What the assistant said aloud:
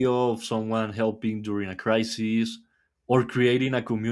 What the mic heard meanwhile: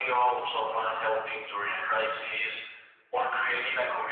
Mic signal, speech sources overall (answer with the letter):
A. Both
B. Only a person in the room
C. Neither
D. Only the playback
D